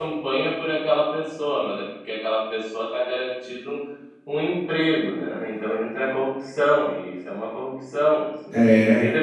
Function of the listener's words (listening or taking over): listening